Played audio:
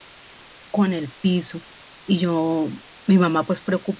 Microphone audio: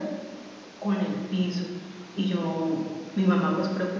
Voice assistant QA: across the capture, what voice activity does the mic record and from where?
echo only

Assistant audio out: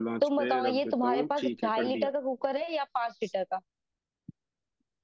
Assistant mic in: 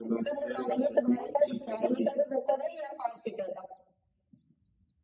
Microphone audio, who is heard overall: echo only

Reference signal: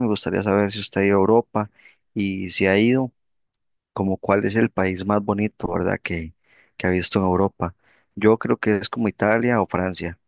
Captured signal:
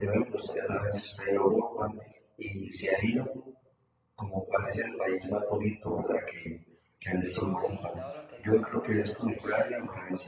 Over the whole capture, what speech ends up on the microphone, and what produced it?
both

